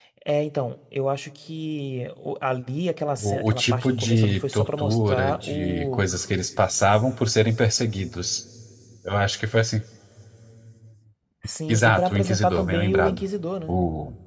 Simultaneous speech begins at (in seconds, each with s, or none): 3.2 s